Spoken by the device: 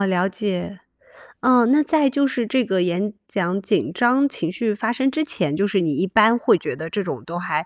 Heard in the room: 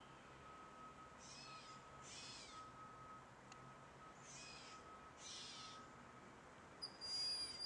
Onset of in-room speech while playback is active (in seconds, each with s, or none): none